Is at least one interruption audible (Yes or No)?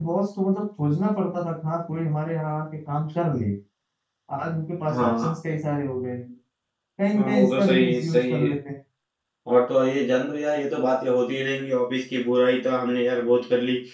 Yes